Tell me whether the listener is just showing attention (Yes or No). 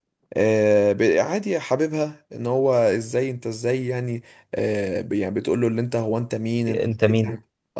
Yes